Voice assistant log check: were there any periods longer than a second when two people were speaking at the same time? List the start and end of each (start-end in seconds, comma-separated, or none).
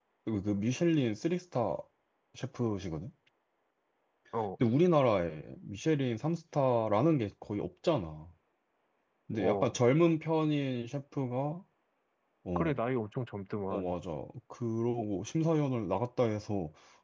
none